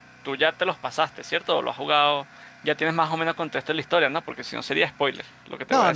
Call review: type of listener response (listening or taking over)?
taking over